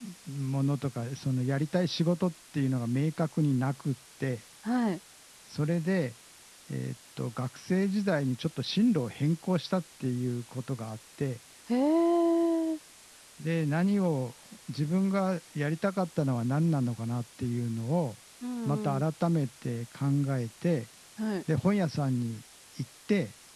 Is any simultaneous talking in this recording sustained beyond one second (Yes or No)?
No